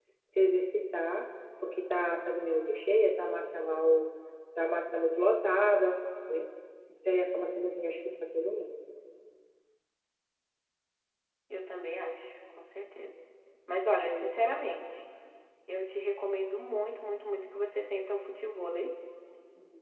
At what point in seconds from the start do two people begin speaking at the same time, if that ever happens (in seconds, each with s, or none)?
none